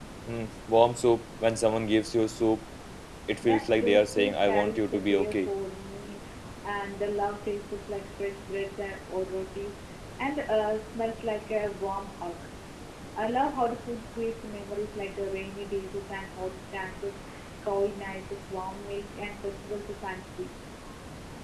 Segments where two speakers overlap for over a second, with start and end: 3.4-5.5

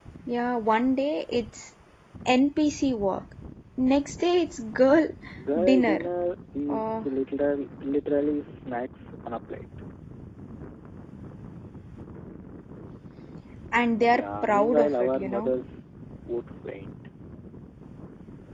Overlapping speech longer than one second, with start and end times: 14.1-15.5

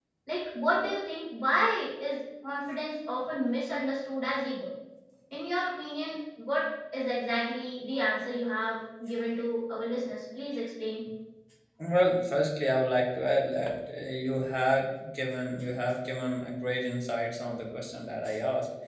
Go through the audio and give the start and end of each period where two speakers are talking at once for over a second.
none

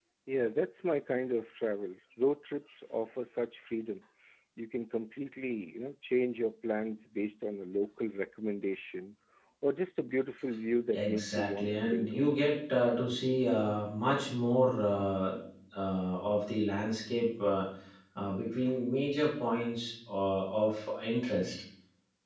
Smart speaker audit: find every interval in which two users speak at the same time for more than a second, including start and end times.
10.9-12.2

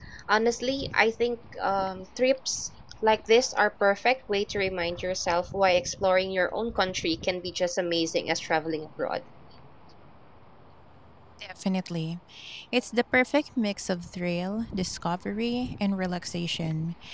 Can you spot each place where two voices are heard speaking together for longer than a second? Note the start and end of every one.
none

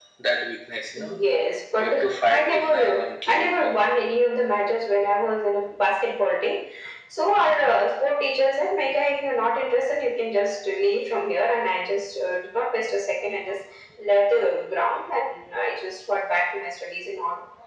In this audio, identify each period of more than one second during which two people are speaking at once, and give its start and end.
2.3-3.8

